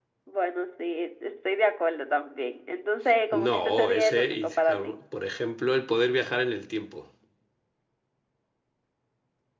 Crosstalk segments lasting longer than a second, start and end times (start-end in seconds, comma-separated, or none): 3.3-4.9